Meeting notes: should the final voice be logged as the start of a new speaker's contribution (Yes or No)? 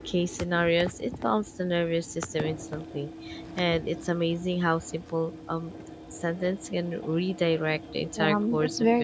Yes